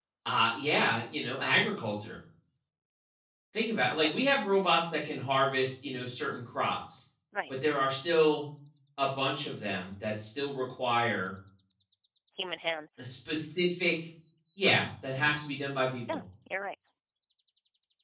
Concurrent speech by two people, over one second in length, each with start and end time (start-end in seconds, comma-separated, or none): none